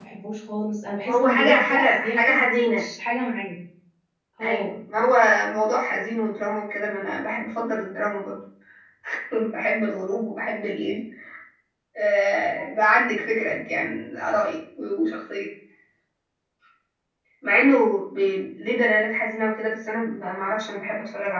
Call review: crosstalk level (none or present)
present